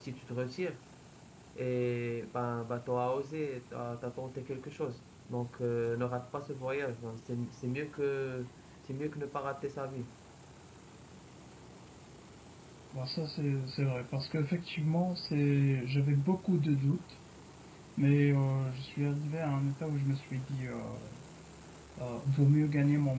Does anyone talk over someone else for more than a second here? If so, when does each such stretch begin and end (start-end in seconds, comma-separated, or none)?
none